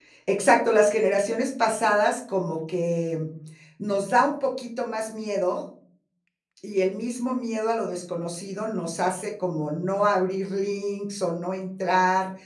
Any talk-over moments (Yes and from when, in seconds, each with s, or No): No